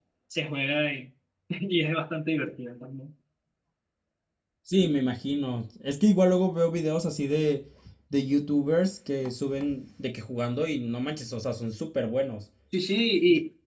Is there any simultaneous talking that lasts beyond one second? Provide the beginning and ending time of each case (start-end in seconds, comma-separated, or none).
none